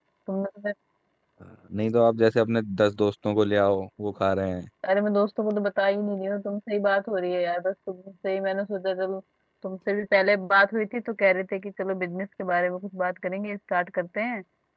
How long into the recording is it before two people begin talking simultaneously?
none

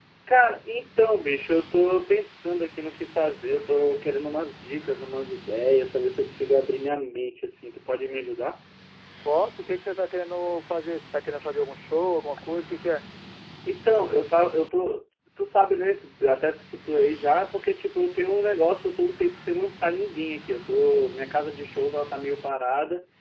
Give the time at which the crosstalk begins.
none

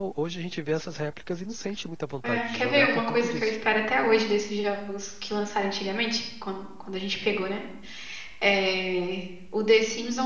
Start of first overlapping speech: 2.2 s

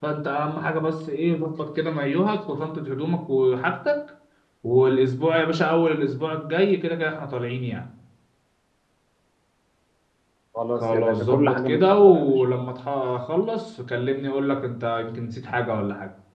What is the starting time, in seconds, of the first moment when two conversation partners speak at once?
10.7 s

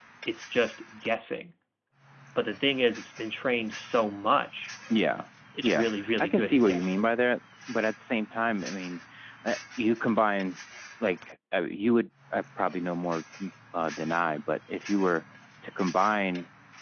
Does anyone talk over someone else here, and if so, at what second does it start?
5.6 s

